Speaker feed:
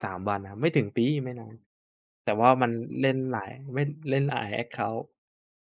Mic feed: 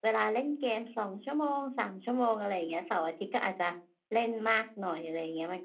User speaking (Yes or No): Yes